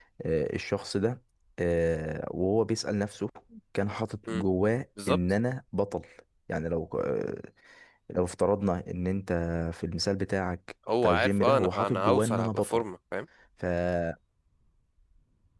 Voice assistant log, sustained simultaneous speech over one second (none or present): present